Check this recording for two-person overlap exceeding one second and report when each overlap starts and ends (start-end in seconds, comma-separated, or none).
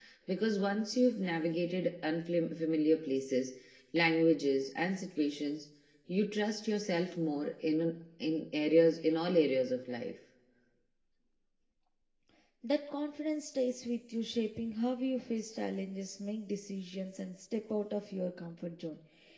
none